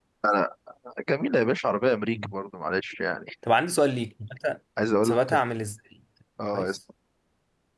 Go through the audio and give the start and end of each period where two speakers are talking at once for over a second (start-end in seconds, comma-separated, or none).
none